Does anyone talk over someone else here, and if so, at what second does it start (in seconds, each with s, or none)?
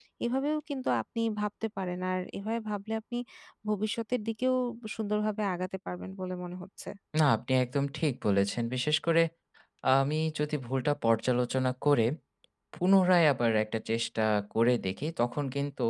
none